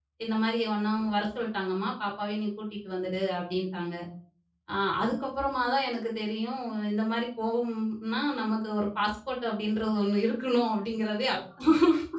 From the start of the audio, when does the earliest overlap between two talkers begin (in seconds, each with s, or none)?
none